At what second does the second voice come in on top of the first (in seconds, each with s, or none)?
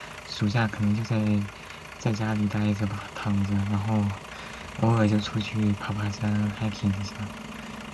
none